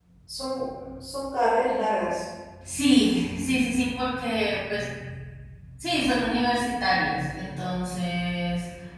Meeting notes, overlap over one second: none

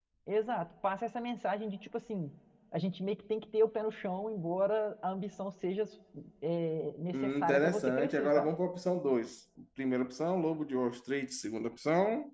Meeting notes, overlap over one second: present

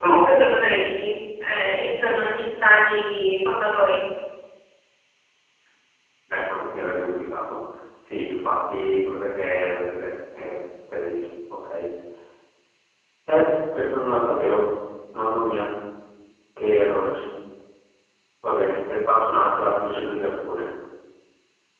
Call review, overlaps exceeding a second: none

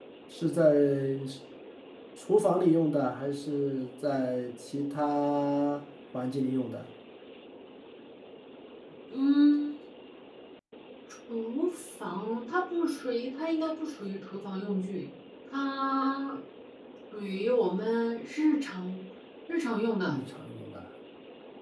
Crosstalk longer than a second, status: none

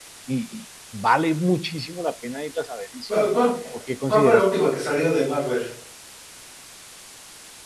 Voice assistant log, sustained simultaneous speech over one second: none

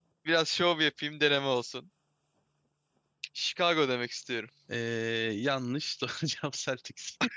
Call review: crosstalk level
none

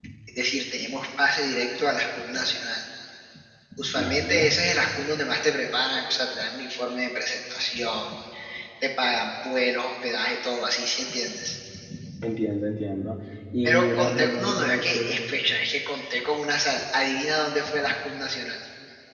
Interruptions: present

